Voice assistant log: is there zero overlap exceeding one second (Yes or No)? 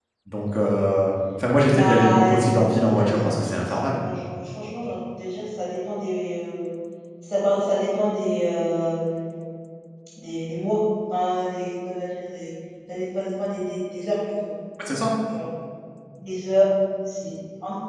No